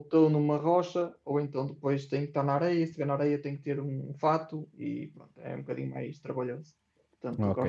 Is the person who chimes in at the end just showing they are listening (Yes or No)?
No